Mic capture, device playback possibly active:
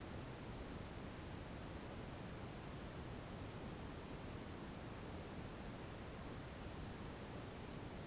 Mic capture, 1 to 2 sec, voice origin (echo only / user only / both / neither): neither